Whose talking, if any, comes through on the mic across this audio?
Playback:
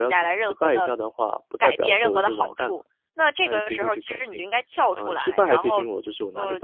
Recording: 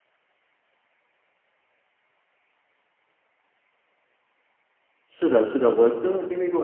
user only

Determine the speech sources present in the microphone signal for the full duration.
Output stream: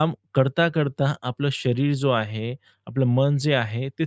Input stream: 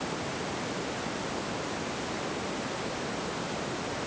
neither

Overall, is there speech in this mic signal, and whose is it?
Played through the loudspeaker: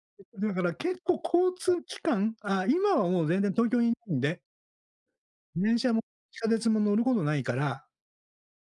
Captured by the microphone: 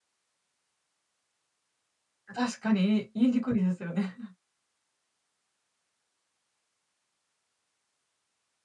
user only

